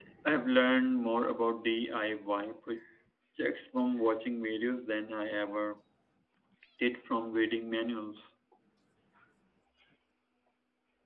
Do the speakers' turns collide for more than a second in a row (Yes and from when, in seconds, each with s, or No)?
No